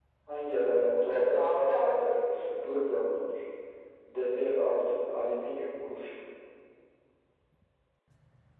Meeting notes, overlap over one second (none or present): present